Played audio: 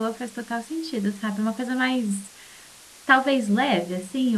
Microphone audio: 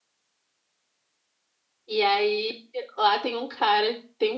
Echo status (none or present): none